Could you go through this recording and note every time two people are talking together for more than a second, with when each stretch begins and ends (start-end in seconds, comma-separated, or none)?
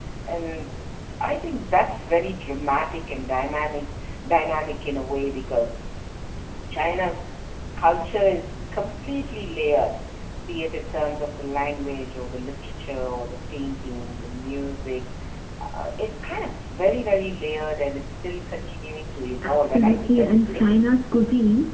19.4-20.8